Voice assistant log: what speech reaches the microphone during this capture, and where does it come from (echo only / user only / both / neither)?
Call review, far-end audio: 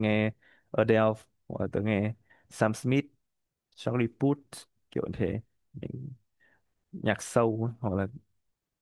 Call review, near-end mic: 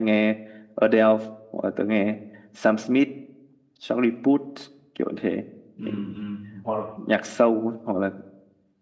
both